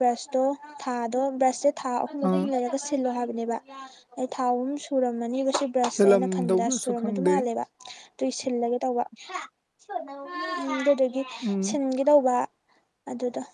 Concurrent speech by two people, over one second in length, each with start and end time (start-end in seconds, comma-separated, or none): 6.0-7.3